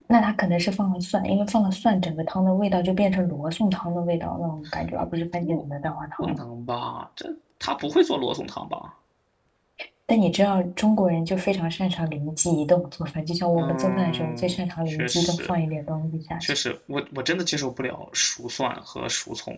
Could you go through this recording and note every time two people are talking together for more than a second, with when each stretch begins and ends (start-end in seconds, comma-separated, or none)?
13.5-15.5